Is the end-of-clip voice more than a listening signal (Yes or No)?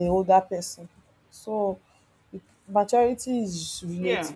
No